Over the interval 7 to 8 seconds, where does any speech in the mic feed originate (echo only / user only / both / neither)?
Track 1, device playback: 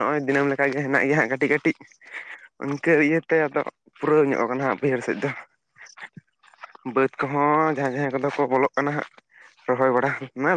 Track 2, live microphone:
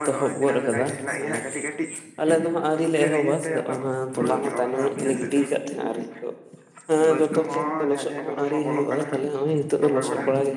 both